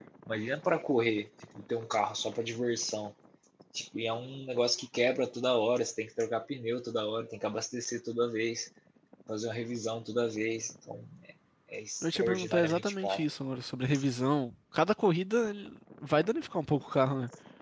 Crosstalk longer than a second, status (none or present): present